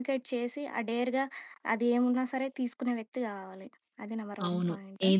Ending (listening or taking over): taking over